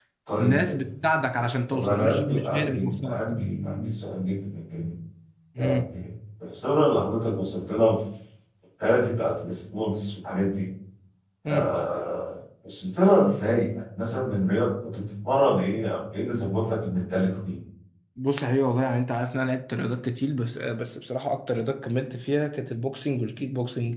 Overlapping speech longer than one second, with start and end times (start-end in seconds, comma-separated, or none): 1.7-3.2